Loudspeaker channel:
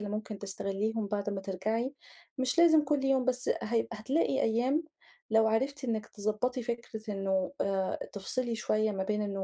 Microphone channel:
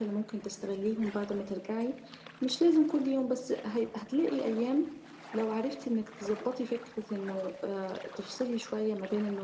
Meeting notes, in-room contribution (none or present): none